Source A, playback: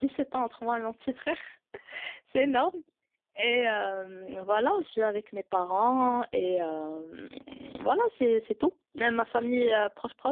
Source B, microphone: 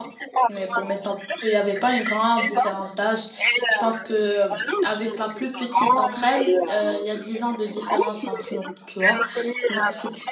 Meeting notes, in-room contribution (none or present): present